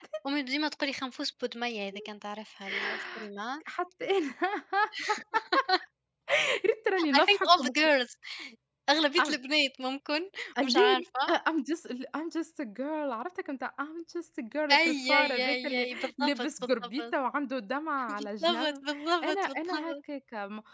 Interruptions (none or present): present